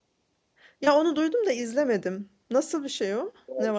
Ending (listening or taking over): taking over